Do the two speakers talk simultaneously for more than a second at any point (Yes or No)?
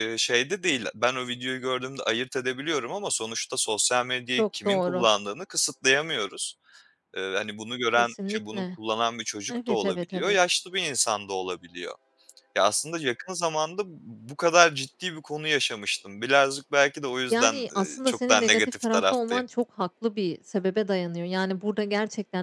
Yes